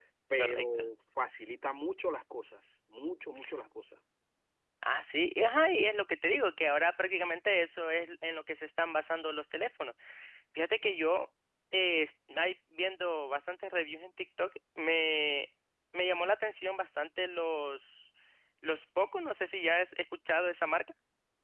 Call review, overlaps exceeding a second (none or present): none